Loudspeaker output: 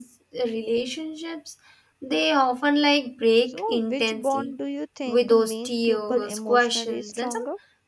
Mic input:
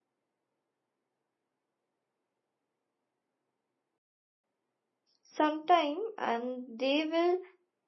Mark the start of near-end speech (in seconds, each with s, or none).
5.2 s